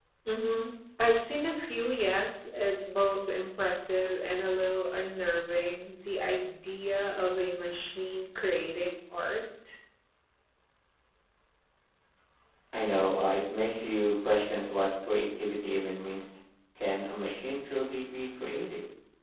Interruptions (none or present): none